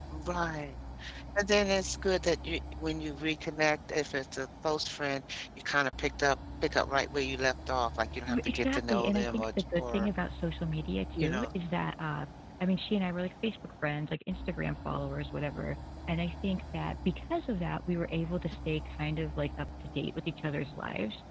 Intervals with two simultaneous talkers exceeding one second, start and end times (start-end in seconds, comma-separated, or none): 8.2-10.1